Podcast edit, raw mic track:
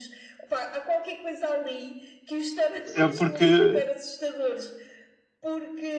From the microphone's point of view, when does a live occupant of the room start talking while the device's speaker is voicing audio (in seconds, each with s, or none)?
2.8 s